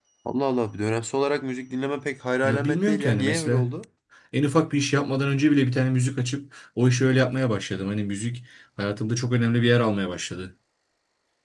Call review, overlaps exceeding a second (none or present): present